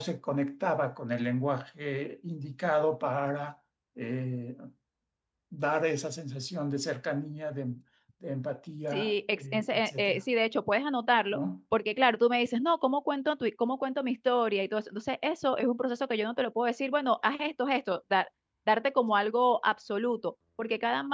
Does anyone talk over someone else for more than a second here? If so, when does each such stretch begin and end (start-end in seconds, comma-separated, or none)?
8.9-10.2